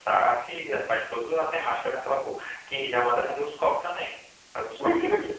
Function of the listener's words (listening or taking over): taking over